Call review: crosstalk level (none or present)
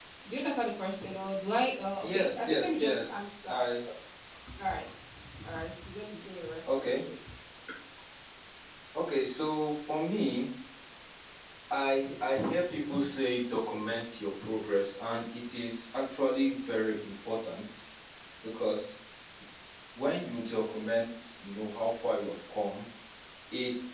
present